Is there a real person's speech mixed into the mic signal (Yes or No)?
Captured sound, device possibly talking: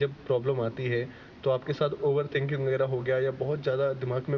Yes